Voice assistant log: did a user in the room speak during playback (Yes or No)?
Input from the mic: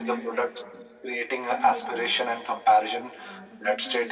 Yes